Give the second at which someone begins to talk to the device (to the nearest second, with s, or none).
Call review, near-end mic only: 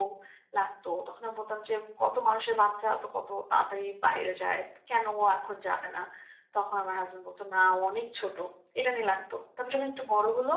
none